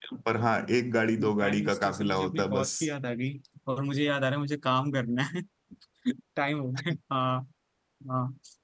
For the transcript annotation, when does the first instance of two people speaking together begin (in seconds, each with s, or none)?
1.2 s